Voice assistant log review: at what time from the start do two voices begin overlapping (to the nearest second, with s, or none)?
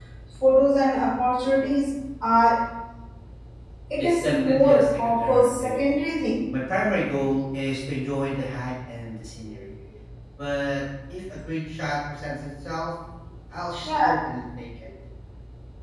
4 s